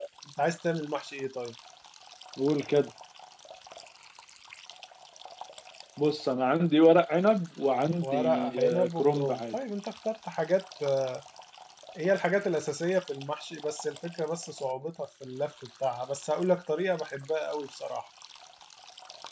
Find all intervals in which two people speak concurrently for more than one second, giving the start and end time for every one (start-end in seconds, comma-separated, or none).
8.0-9.5